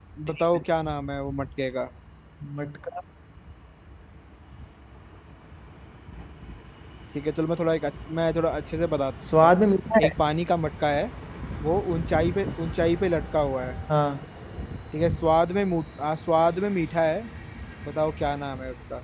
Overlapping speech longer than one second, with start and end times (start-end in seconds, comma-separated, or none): none